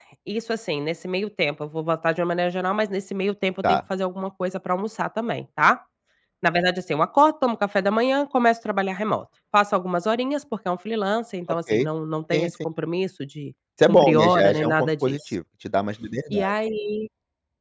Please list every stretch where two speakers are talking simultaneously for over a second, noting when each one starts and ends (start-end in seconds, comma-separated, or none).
13.9-15.3